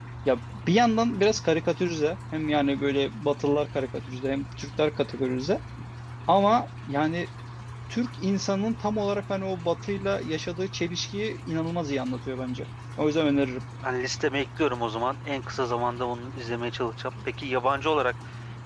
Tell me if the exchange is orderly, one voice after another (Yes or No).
Yes